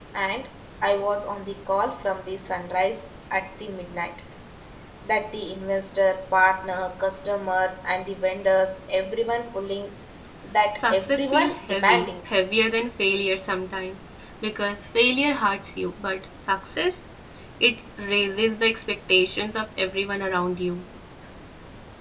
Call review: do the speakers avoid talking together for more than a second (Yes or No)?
No